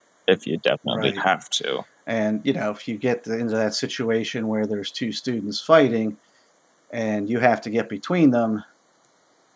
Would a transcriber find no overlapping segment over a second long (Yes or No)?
Yes